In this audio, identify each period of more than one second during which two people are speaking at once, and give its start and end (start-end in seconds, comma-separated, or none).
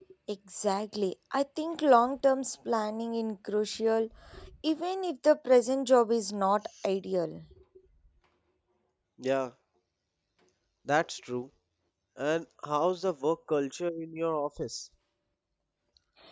none